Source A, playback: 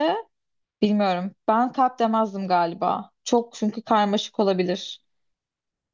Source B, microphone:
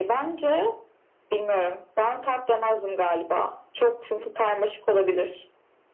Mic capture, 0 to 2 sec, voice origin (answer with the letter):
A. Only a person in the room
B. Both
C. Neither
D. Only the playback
D